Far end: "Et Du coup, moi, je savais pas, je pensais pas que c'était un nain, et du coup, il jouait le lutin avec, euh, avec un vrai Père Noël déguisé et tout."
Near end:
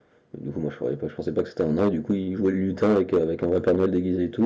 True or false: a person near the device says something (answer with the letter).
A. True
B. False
B